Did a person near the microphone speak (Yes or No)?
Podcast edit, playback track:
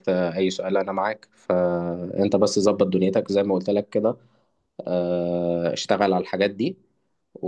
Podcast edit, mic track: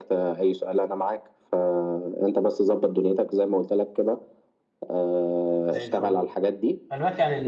Yes